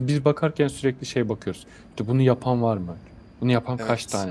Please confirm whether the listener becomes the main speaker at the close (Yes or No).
No